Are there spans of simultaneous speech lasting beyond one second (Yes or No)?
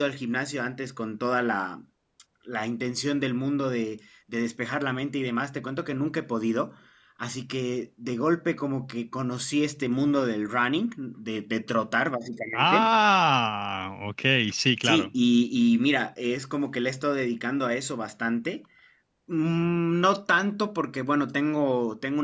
No